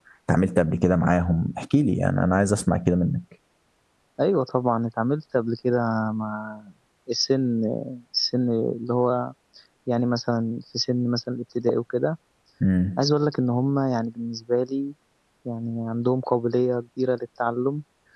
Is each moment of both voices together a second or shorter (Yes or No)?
Yes